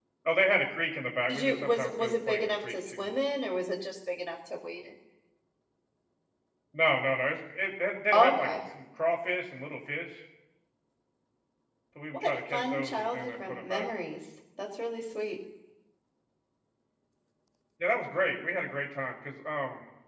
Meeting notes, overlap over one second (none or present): present